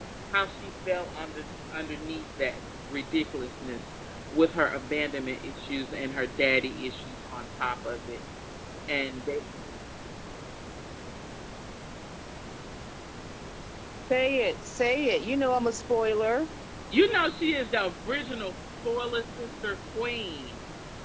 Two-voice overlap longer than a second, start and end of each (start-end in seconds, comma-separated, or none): none